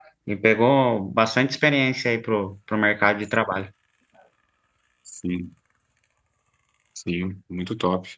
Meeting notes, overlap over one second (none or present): none